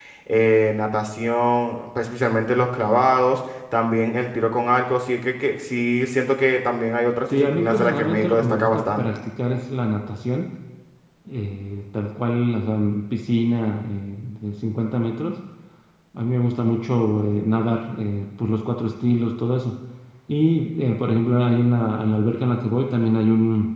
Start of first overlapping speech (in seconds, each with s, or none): 7.3 s